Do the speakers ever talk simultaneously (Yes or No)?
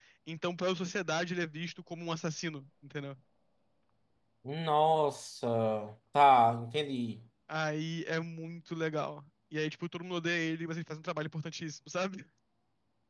No